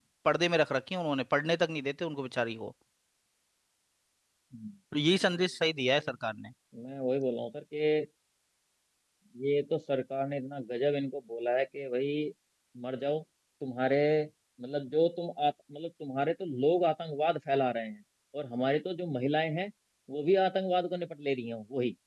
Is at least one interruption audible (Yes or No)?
No